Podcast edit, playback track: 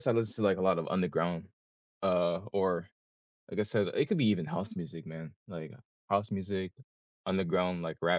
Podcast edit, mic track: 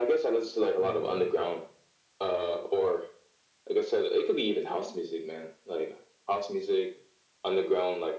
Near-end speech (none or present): present